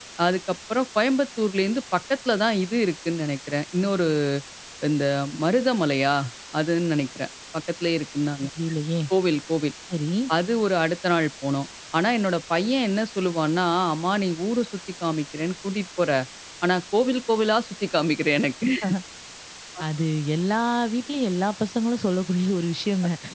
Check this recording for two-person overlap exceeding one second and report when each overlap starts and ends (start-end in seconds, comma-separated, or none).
none